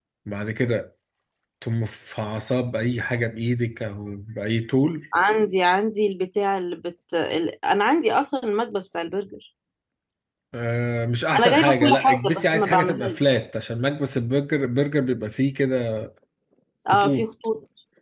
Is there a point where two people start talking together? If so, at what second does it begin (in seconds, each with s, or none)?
11.4 s